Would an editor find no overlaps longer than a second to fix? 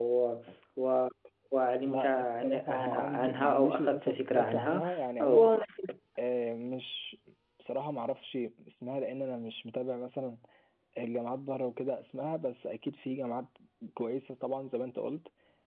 No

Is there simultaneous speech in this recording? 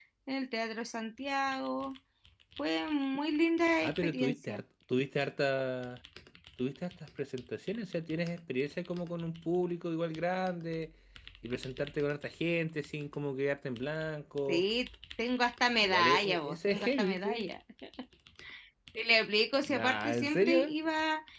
Yes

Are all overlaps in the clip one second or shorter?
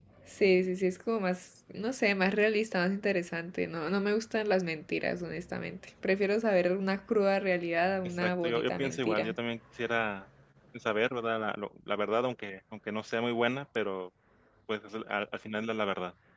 No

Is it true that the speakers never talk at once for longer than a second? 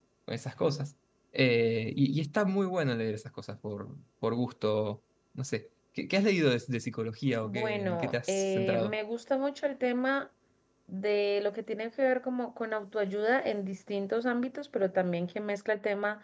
No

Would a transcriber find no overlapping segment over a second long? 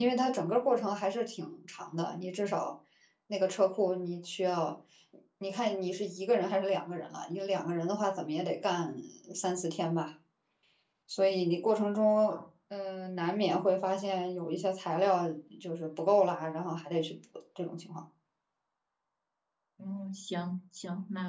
Yes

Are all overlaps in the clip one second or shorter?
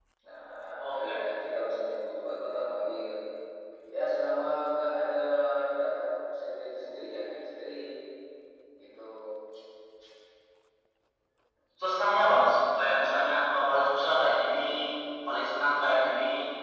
Yes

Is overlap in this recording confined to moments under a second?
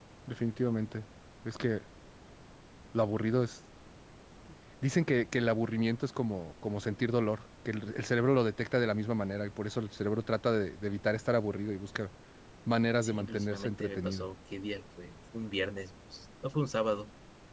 No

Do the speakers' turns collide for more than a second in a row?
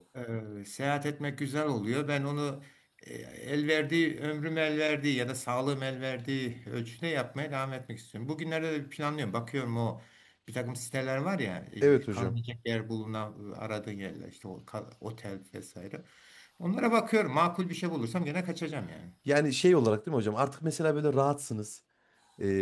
No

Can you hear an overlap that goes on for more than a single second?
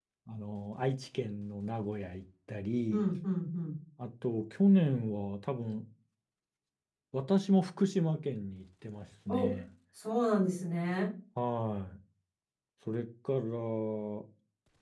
No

